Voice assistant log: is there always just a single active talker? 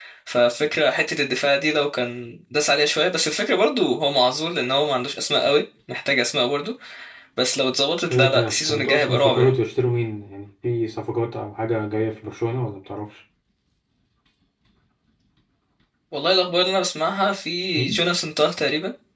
No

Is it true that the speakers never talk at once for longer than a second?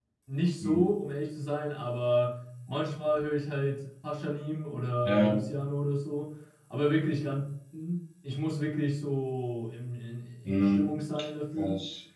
Yes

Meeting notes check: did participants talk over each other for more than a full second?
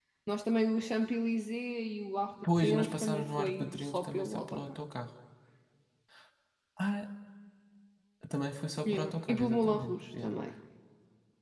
Yes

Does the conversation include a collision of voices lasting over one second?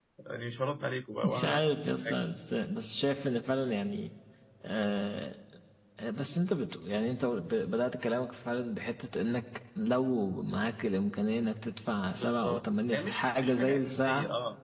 Yes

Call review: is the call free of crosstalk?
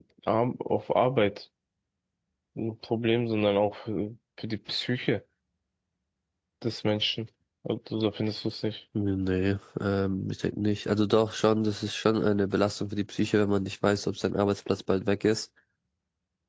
Yes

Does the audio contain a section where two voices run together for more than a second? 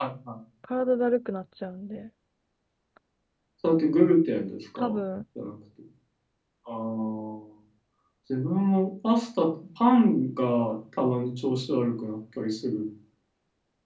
No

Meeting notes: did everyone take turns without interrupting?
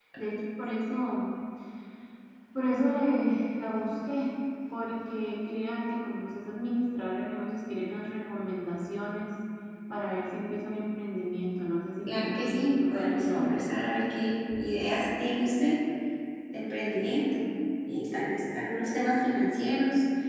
No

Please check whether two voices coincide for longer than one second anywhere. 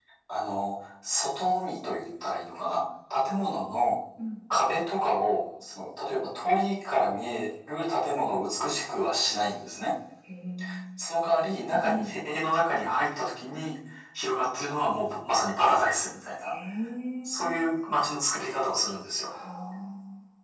No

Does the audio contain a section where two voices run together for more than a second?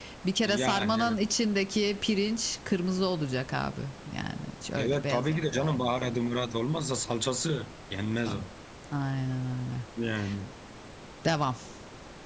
Yes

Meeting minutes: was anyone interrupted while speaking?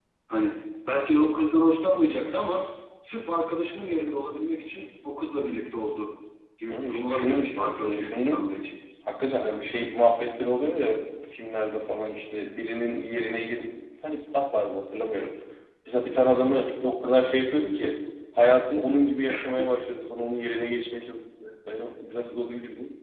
Yes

